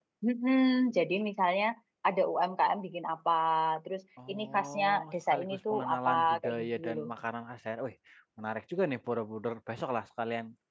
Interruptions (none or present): present